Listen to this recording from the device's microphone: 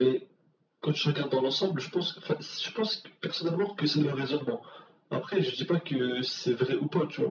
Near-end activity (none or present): none